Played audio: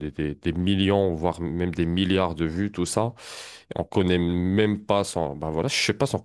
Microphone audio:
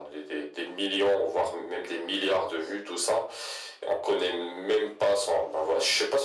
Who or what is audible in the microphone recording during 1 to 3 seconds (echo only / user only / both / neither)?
echo only